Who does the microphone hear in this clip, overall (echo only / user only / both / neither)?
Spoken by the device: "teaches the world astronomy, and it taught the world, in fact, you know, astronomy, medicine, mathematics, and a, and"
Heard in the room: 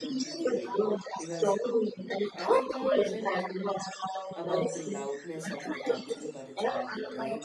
both